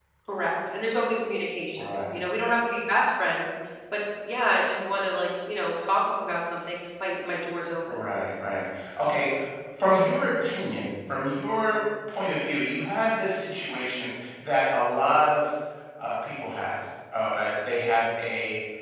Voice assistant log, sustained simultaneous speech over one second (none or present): none